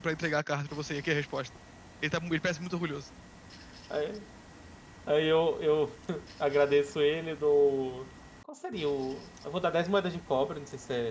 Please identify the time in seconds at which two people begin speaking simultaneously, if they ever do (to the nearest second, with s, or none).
none